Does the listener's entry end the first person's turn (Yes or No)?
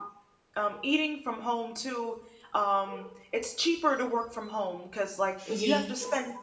No